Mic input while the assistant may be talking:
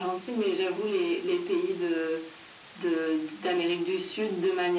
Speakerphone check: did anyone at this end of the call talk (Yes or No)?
No